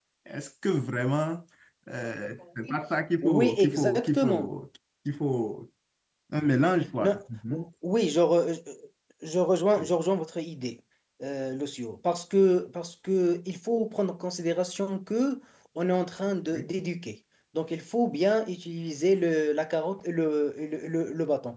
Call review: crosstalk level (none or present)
present